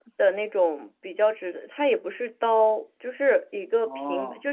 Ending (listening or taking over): listening